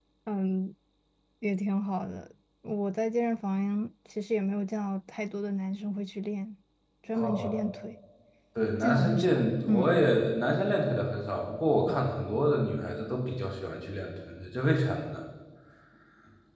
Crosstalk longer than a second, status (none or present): present